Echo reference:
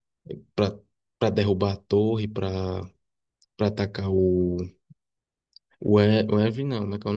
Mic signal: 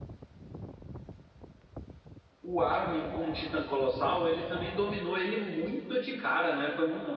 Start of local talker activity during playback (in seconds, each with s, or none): 2.4 s